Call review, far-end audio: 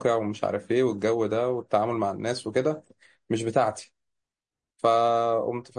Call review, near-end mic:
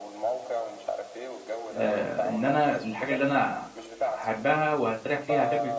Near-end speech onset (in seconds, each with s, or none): 1.7 s